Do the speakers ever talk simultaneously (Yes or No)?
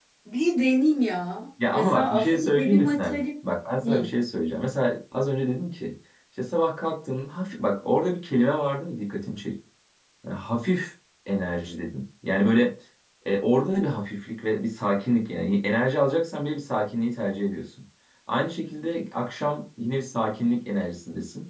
Yes